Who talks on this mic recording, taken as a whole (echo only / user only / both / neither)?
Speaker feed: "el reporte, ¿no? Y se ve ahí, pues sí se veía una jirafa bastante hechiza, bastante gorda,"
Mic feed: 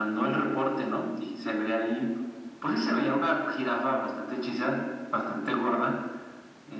echo only